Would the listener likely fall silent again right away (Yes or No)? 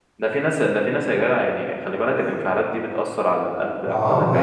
No